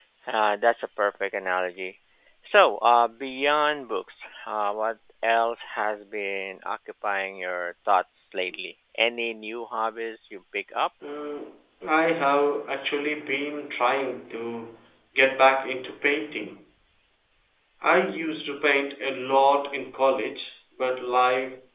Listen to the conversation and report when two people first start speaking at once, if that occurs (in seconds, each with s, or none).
none